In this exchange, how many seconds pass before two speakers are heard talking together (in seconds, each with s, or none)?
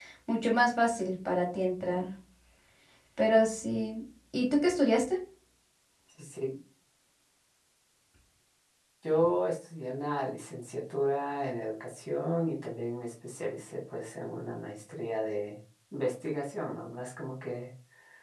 none